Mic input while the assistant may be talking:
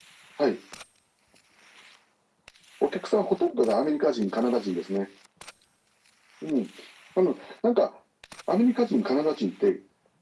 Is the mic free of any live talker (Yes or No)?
Yes